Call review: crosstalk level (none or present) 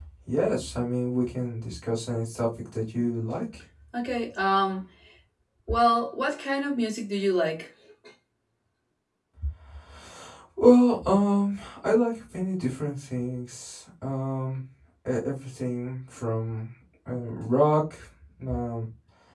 none